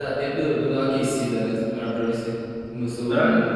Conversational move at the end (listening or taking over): listening